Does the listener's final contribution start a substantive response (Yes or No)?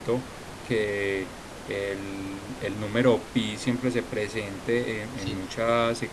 No